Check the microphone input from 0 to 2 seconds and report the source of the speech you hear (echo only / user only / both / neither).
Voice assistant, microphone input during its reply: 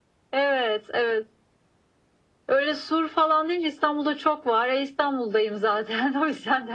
echo only